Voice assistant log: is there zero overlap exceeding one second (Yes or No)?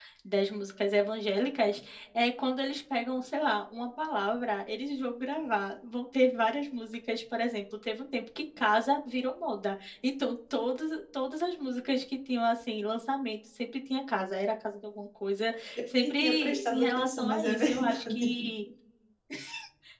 No